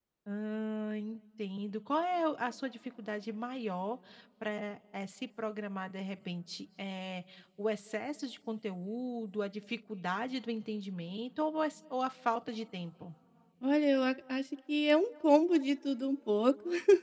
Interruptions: none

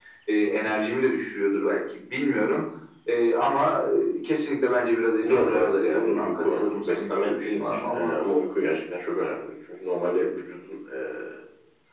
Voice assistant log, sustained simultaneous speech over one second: present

